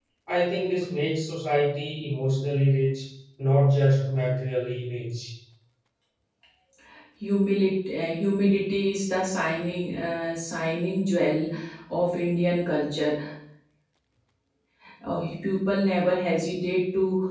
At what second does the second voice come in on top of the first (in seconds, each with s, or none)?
none